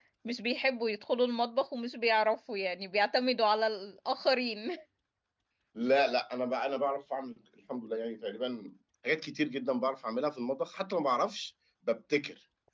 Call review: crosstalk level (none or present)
none